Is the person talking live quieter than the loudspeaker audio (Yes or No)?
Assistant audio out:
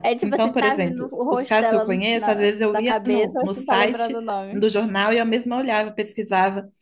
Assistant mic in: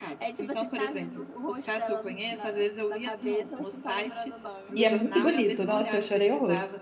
No